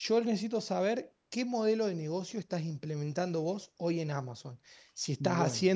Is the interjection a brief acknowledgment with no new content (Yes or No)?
Yes